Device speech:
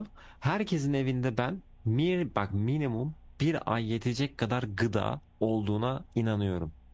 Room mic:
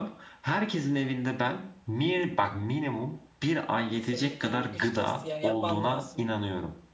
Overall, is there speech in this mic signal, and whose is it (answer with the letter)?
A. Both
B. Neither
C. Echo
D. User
A